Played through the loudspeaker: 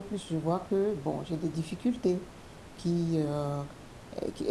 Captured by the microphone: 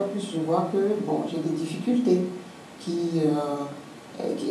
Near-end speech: none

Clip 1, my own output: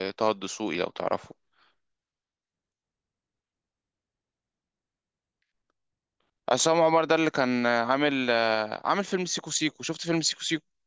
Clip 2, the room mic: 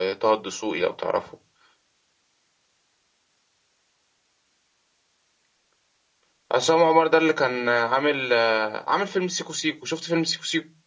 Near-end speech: none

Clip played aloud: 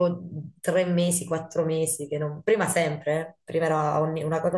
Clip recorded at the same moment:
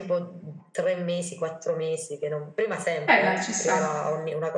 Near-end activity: present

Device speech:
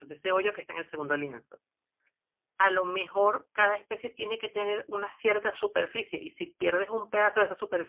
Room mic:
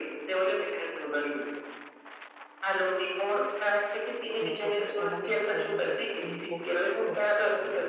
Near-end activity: present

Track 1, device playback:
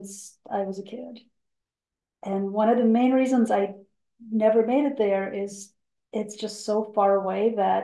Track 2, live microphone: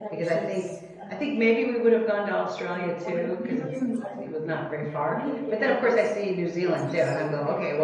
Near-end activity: present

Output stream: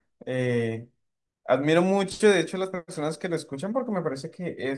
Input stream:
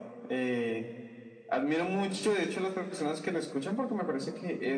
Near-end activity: none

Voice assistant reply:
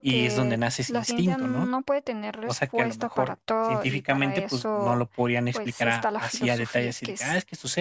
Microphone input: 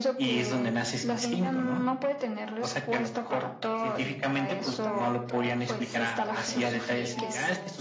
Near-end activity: present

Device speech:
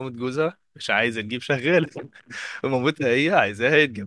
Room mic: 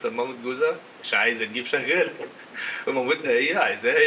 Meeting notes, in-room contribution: none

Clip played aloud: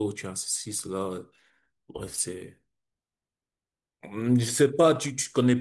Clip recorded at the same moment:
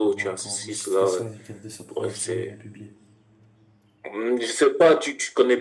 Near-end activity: present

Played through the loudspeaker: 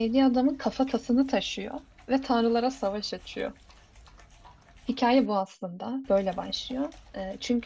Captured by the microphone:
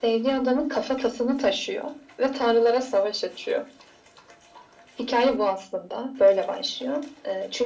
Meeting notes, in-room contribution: none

